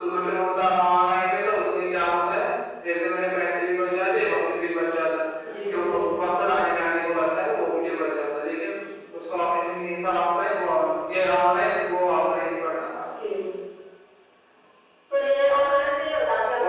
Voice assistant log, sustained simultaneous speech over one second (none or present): none